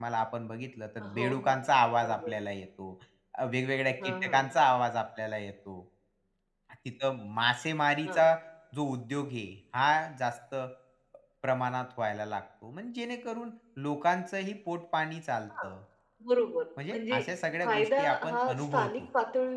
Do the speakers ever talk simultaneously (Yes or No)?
Yes